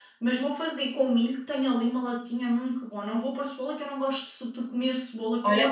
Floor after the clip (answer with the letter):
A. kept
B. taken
B